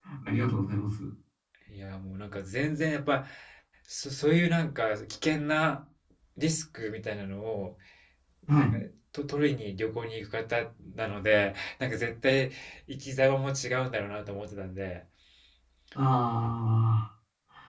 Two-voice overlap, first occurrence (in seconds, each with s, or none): none